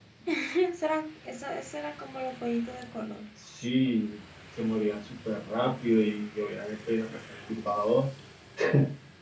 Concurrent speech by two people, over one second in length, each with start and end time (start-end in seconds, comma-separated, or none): none